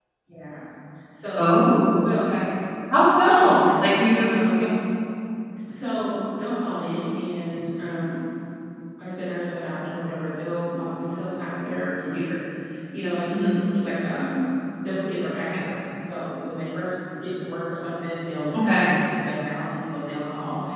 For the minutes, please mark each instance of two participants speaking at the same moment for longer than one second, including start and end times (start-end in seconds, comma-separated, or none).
3.3-4.7